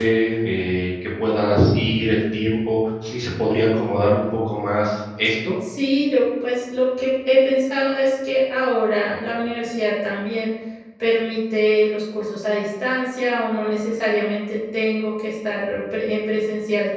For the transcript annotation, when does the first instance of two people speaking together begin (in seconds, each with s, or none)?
none